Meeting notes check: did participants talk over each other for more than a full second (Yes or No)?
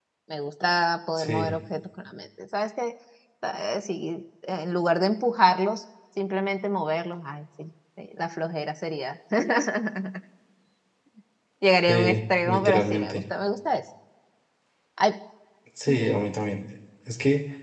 Yes